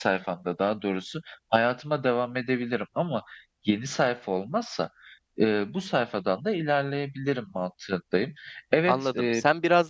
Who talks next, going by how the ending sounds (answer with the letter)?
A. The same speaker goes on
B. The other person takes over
B